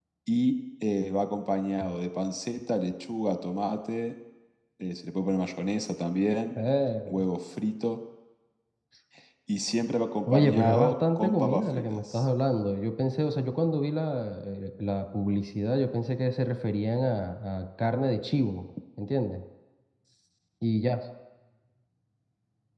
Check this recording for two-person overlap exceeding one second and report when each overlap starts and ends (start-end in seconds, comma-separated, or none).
10.3-12.2